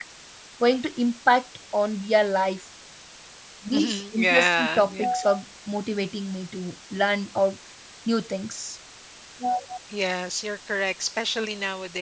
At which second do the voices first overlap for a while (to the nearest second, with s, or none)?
4 s